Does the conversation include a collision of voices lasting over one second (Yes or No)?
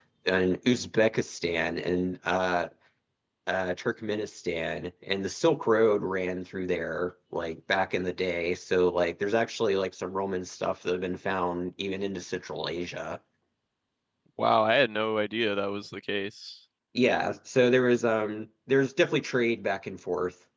No